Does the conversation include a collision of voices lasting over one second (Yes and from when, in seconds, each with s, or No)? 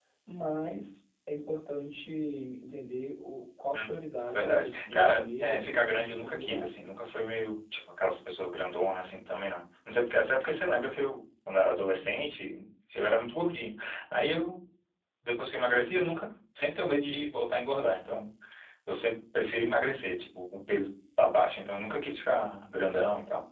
Yes, from 4.2 s